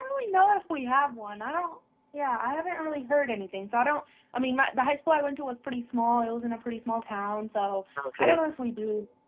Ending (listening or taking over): listening